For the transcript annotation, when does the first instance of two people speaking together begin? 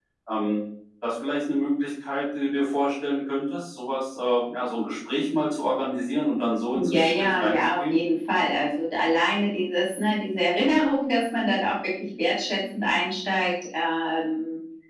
6.7 s

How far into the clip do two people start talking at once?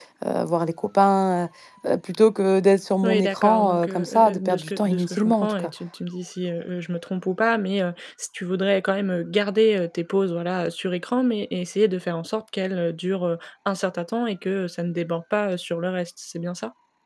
3.0 s

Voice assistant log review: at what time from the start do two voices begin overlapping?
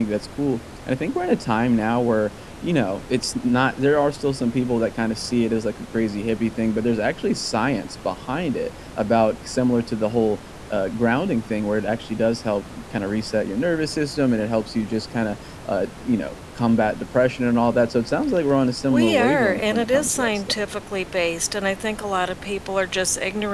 18.9 s

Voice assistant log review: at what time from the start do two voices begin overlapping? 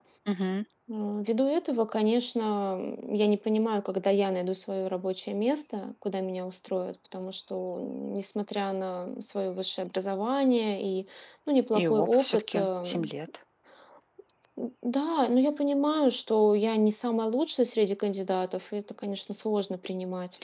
11.8 s

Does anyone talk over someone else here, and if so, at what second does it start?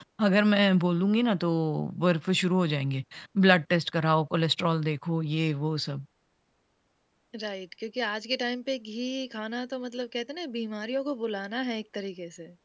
none

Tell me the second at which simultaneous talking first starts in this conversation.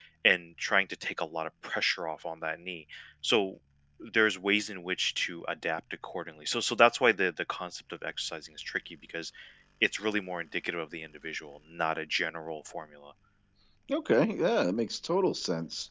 none

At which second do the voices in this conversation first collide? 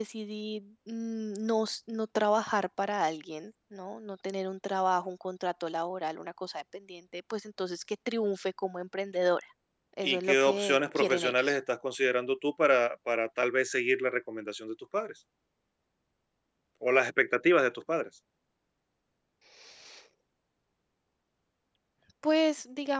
10.0 s

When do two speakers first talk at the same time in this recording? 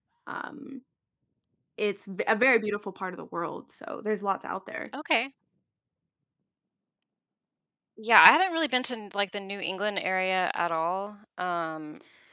none

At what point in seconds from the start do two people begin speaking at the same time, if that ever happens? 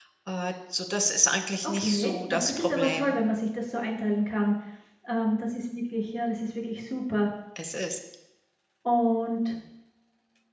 1.8 s

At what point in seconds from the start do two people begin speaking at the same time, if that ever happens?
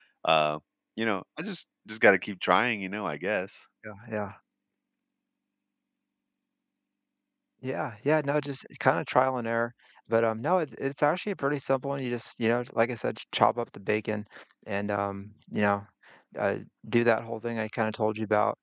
none

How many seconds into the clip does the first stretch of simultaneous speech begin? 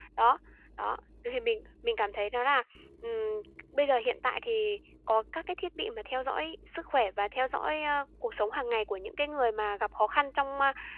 none

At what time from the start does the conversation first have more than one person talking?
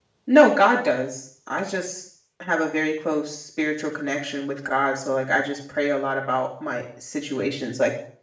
none

